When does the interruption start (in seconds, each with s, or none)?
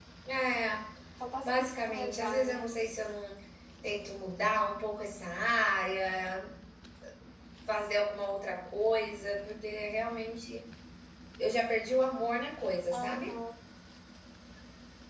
1.4 s